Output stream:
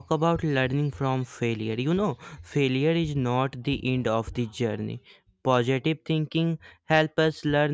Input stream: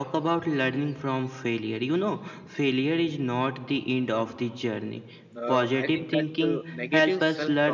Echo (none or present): present